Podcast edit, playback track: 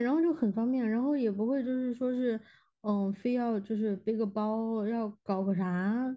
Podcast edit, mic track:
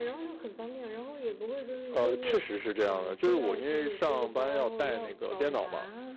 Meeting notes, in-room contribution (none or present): present